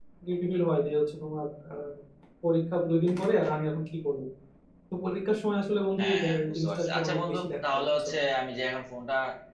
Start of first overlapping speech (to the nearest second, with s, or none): 6 s